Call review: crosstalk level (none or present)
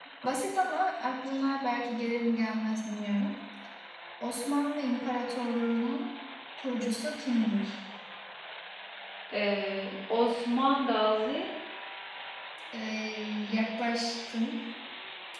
none